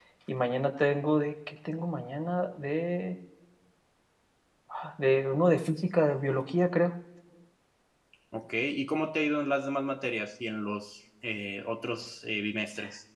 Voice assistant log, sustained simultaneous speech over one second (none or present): none